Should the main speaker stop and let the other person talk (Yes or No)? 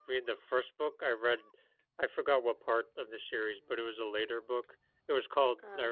No